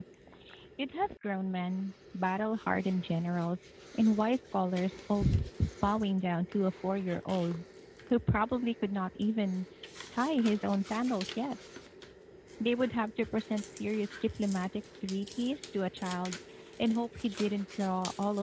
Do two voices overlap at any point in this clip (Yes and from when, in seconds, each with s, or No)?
No